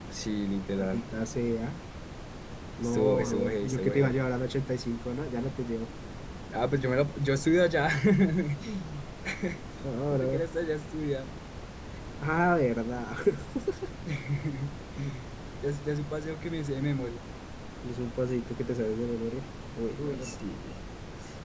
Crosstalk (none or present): present